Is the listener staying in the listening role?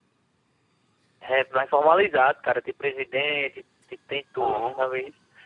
Yes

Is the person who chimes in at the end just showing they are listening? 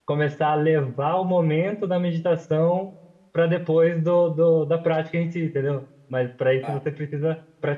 Yes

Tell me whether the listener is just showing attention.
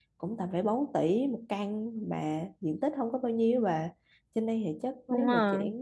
Yes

